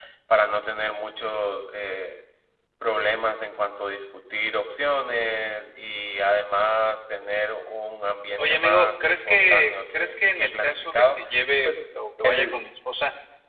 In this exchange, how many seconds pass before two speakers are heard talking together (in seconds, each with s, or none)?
8.4 s